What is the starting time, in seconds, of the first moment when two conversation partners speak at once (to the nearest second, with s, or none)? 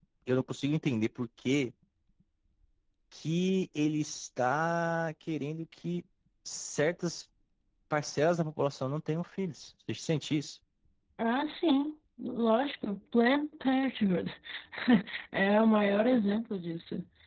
none